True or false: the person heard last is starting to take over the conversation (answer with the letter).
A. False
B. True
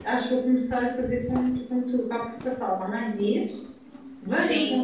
A